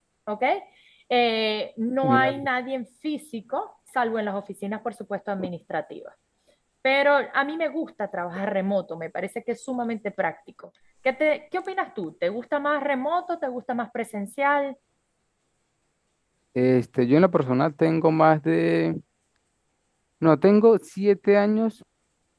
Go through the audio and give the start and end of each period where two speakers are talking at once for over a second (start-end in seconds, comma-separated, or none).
none